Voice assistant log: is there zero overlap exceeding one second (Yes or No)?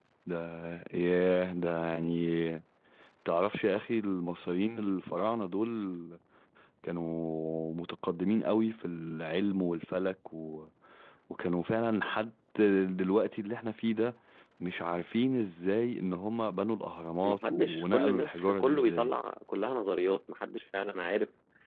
No